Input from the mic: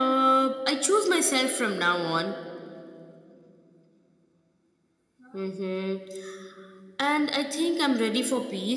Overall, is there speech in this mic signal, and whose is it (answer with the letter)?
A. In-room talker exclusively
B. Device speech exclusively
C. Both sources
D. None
B